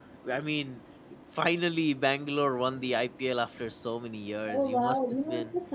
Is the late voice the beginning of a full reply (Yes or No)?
Yes